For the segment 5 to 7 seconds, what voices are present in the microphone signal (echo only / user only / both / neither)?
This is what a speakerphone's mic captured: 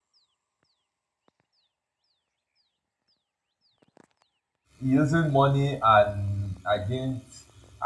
user only